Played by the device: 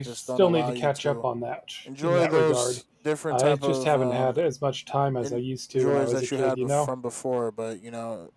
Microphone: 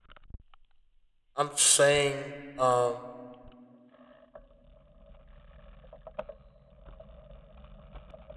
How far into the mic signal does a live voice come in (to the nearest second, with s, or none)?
1 s